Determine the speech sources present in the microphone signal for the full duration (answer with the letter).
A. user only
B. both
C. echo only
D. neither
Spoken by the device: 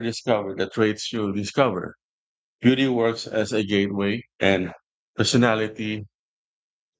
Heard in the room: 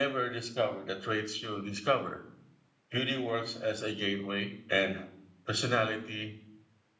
C